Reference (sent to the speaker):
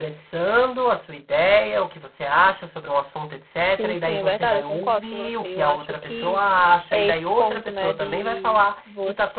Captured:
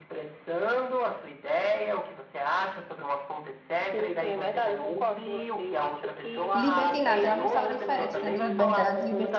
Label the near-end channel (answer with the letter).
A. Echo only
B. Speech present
B